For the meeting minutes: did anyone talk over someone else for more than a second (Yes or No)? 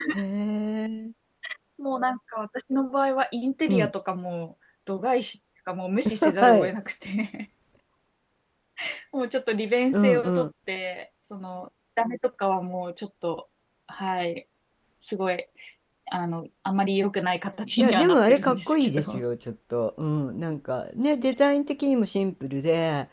Yes